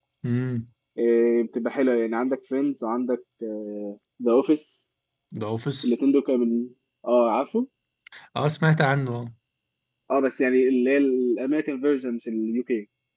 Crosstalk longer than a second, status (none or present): none